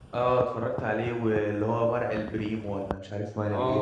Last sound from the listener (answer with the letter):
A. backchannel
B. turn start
B